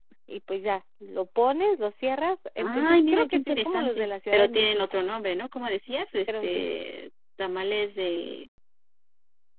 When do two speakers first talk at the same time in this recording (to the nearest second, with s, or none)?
3 s